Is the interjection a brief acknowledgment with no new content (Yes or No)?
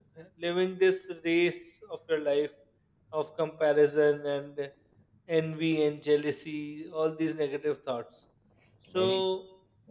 No